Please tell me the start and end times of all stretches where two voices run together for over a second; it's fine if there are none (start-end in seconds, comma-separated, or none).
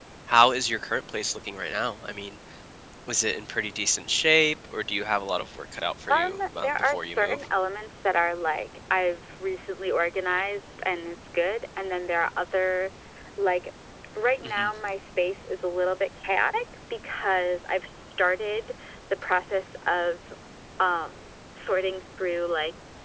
6.1-7.4